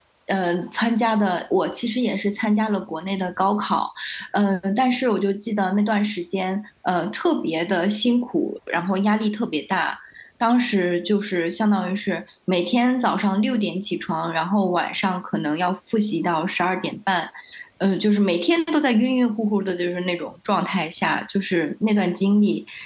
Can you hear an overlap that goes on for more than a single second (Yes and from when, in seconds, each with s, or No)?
No